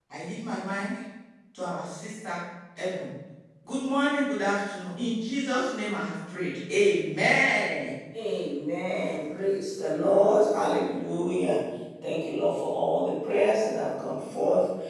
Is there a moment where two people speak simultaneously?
No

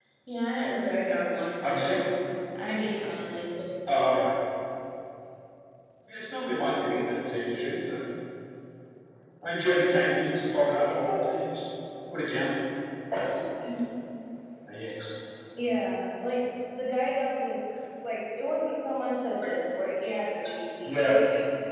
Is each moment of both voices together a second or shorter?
Yes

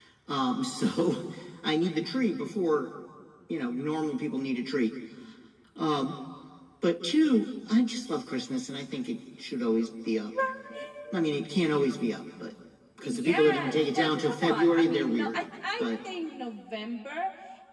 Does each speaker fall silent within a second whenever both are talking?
No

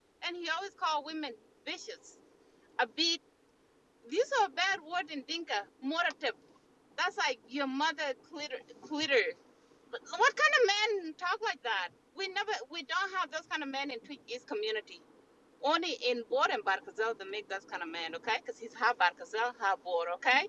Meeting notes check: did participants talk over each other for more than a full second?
No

